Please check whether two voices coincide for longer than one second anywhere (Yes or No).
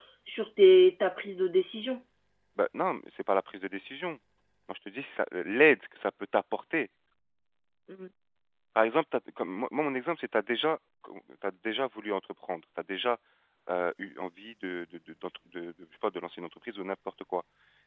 No